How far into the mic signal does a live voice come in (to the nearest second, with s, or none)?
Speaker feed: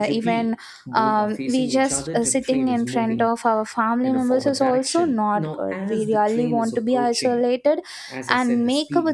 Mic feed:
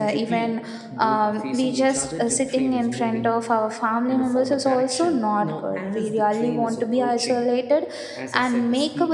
none